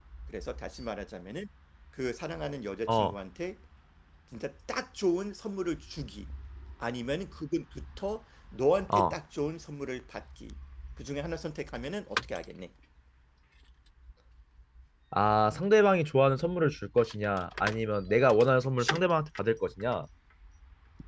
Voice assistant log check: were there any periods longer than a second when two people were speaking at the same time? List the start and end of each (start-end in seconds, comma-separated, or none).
none